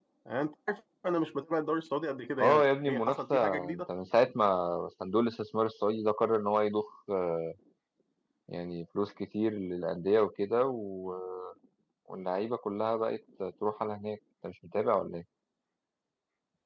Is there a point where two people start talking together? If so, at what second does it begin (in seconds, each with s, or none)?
2.4 s